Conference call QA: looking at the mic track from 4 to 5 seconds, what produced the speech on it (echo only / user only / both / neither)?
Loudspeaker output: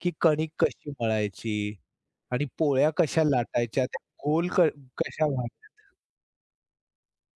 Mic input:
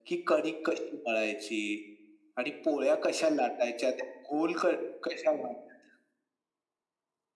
echo only